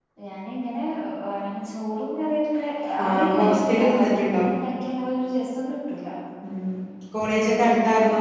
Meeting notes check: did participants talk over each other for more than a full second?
Yes, from 3.0 s

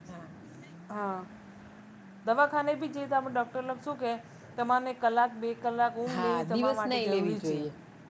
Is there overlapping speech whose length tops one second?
Yes, from 6.1 s

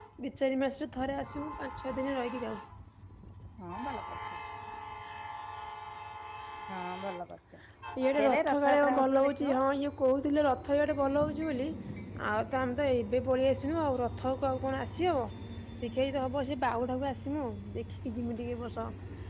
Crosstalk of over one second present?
Yes, from 8.2 s

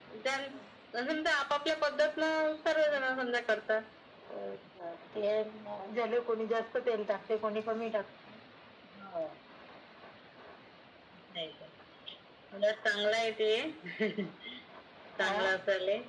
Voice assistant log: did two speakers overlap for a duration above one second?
No

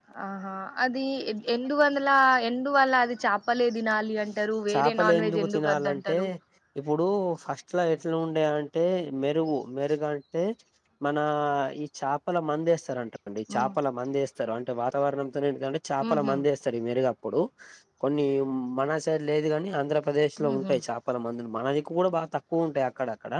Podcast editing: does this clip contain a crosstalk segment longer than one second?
Yes, from 4.7 s

